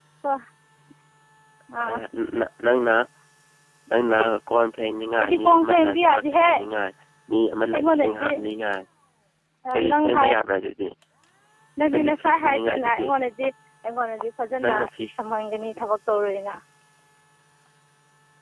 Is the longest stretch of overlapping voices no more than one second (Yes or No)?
No